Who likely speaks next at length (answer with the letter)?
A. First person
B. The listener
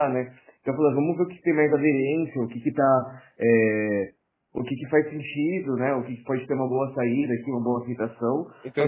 B